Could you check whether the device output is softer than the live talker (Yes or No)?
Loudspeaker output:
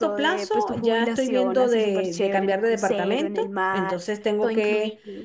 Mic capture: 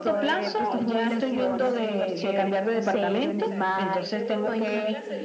No